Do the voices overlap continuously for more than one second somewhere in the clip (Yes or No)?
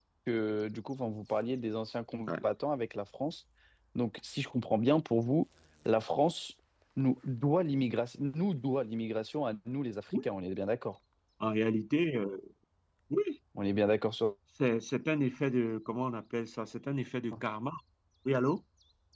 No